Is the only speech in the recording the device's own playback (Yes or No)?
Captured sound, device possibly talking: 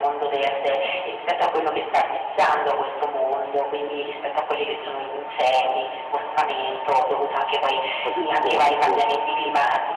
No